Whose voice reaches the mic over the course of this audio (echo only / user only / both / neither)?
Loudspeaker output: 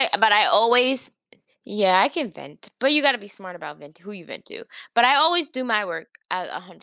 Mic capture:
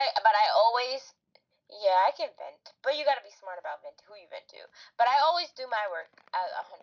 echo only